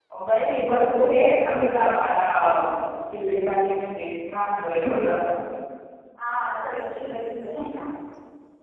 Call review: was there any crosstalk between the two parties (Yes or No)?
No